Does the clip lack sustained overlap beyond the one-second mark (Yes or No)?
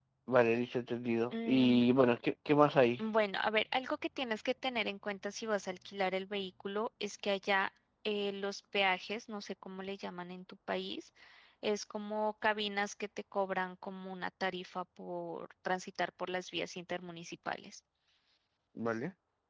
Yes